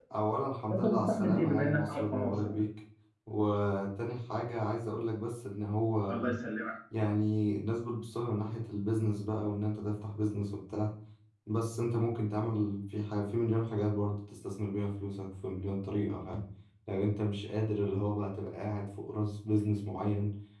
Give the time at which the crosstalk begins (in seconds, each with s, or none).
0.7 s